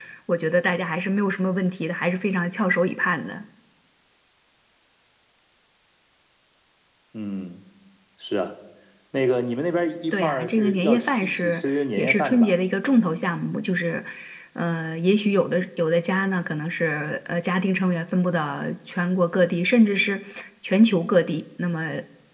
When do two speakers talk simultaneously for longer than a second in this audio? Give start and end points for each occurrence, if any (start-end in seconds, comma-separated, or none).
10.1-12.5